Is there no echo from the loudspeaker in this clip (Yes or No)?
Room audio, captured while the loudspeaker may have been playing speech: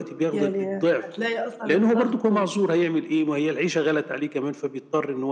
No